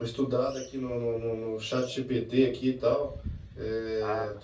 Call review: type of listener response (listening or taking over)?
listening